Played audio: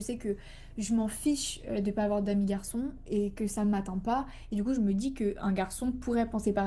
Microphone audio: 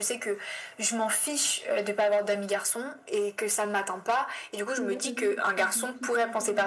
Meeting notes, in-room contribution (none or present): present